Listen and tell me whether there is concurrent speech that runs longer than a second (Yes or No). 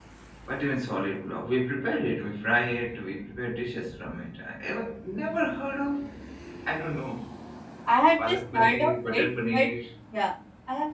Yes